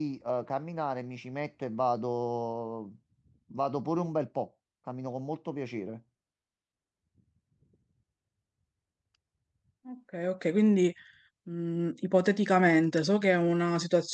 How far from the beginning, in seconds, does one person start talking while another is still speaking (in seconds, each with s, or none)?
none